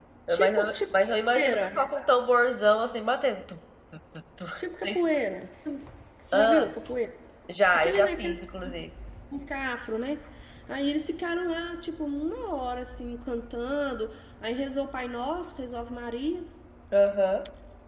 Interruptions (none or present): present